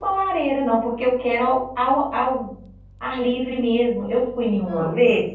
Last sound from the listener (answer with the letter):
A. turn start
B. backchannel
B